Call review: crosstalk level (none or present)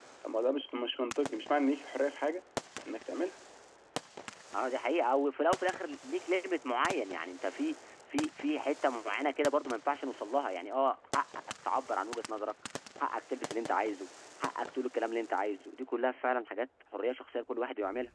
none